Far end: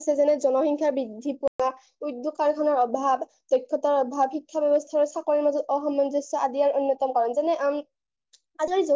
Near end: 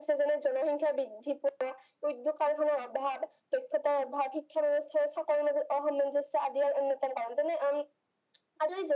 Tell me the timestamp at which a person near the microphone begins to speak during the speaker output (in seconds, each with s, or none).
none